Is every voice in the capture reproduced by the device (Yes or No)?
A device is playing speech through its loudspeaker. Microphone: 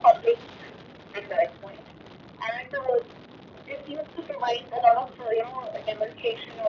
Yes